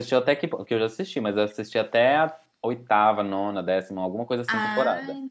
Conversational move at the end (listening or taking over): taking over